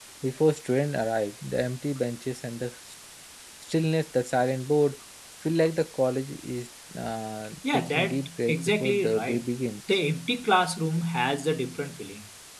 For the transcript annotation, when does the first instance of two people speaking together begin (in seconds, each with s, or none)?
7.6 s